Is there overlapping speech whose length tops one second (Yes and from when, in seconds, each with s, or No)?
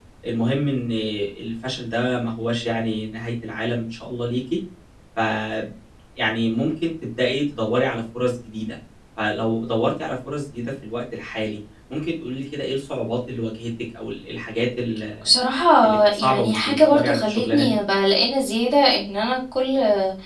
Yes, from 15.8 s